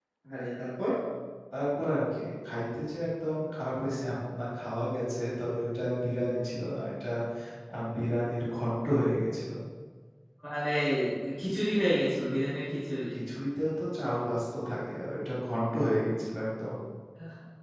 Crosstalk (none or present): none